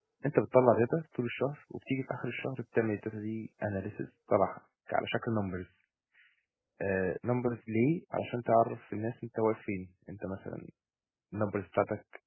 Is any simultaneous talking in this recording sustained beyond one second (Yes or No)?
No